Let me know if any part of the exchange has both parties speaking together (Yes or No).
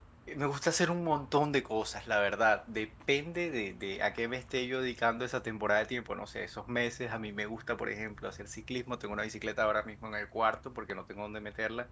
No